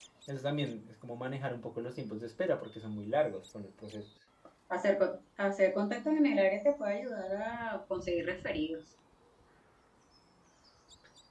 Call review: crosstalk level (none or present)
none